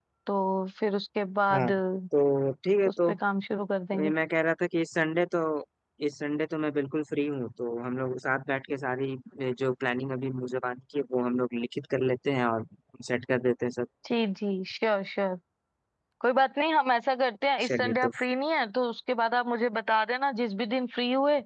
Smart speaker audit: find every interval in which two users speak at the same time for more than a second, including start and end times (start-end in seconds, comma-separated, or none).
none